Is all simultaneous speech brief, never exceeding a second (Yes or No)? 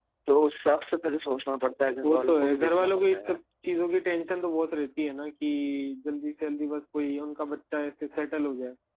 No